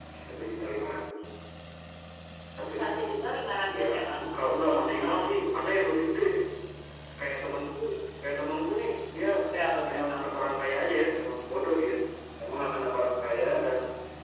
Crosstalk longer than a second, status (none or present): present